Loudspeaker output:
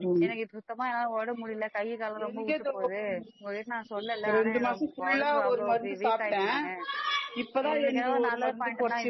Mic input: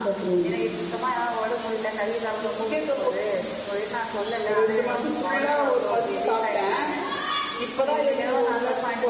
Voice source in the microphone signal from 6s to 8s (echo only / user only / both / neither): echo only